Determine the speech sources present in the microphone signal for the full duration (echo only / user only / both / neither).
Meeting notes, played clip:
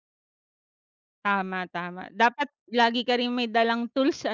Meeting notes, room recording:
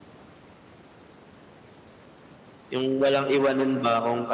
user only